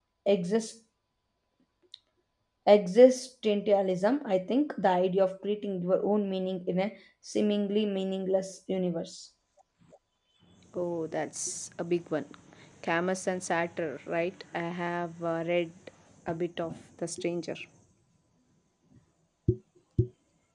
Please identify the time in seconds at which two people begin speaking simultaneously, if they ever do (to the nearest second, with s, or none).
none